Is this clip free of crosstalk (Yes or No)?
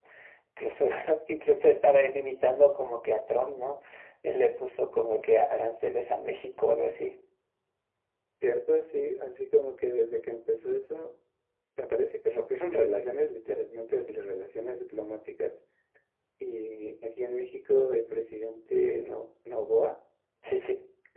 Yes